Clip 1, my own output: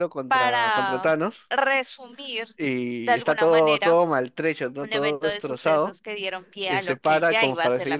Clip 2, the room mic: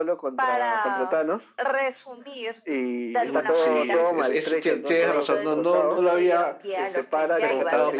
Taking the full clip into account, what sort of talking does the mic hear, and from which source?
both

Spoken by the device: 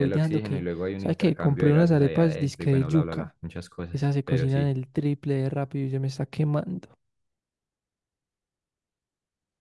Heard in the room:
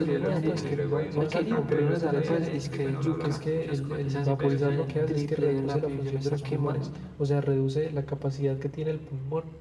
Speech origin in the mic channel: both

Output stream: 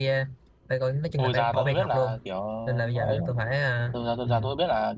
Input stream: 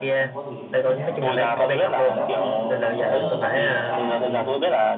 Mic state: both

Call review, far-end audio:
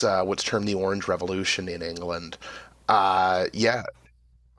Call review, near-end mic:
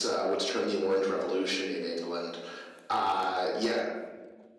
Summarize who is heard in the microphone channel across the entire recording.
echo only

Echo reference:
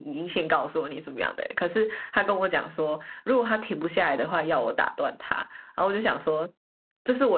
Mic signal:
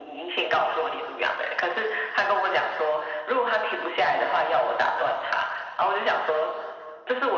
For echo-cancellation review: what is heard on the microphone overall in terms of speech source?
echo only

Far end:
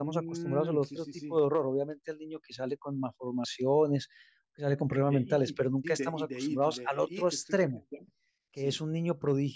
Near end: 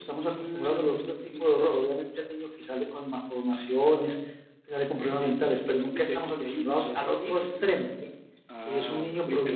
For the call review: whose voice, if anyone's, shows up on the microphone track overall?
both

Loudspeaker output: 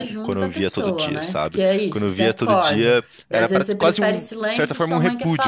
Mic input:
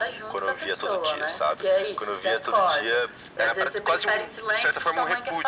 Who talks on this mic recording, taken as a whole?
echo only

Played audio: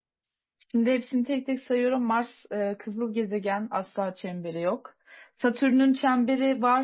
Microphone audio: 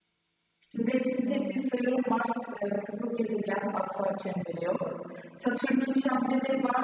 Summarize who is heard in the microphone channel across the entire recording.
both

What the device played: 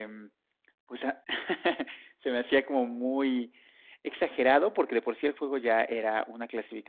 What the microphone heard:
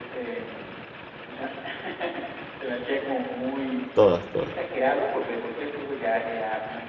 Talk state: both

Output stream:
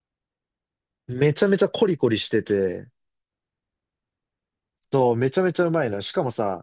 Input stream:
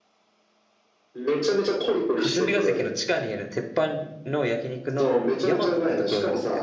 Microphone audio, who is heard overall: both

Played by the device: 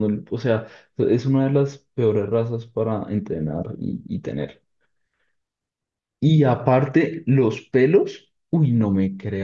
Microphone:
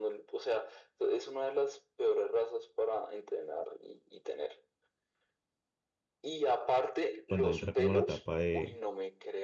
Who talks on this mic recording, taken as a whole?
both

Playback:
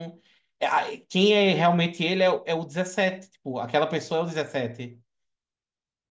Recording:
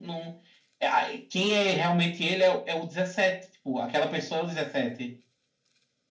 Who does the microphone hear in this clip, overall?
echo only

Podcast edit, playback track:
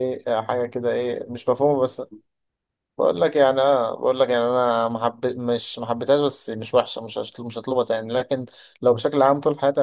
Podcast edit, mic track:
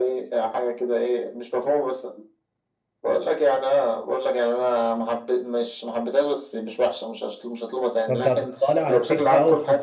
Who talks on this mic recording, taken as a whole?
both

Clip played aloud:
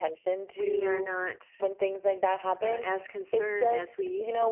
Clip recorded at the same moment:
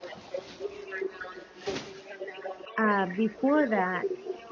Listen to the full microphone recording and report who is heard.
both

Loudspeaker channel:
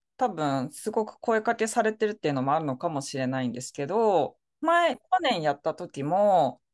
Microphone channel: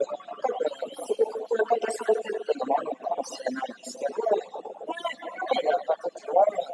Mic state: echo only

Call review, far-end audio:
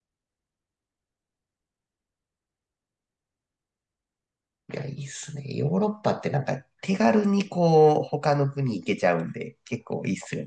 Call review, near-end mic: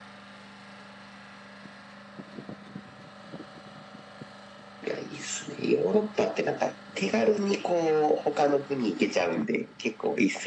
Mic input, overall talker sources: echo only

